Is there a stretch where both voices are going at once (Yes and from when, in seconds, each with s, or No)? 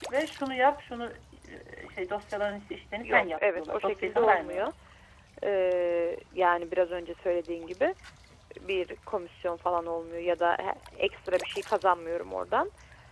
Yes, from 3.0 s